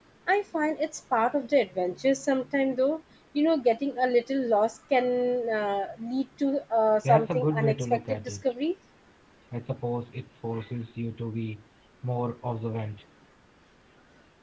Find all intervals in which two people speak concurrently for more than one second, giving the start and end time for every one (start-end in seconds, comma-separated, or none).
7.0-8.4